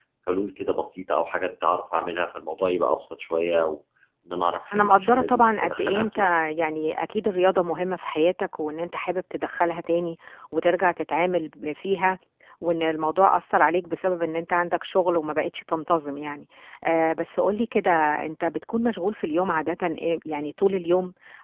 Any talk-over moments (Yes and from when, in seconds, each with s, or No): Yes, from 4.7 s